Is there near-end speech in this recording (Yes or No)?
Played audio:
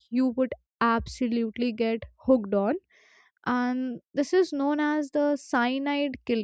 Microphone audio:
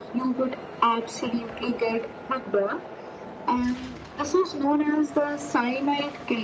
No